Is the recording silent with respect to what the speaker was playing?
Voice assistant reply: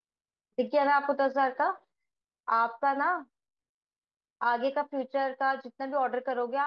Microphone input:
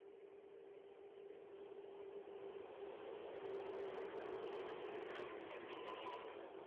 Yes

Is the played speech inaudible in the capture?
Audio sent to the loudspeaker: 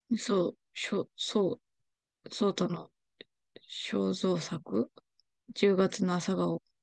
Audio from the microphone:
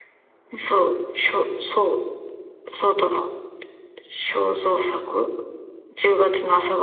No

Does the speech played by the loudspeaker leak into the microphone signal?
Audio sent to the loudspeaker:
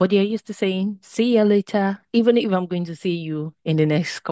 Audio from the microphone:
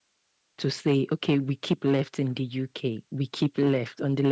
No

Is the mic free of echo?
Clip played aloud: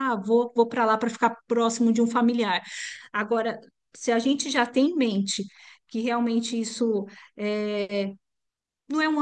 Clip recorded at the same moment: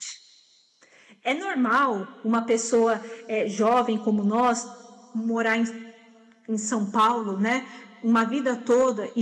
Yes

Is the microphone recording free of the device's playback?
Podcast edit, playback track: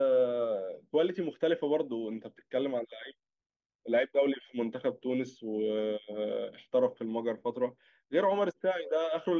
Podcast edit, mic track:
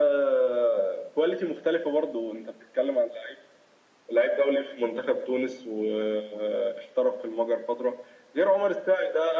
No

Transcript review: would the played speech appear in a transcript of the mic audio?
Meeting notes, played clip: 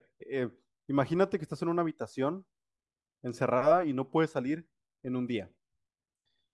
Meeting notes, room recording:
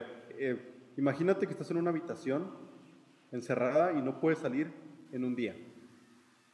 Yes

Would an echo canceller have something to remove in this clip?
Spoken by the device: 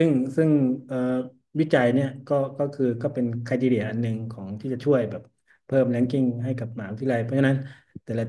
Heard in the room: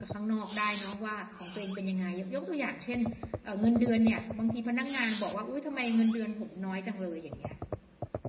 No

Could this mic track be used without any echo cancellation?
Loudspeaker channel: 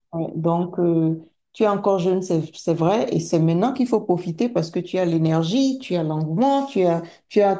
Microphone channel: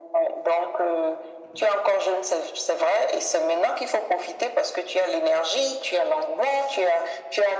No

